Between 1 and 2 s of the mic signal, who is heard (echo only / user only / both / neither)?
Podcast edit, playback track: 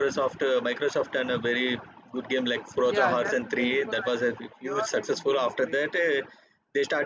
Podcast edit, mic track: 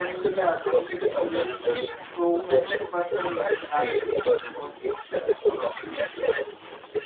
both